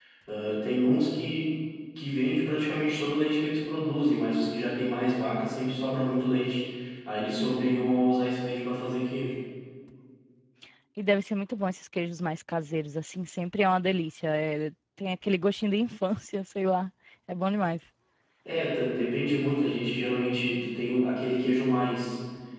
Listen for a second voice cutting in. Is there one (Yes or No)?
No